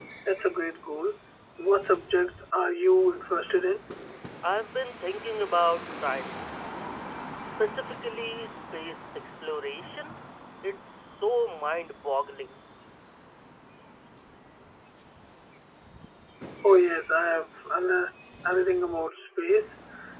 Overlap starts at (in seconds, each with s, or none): none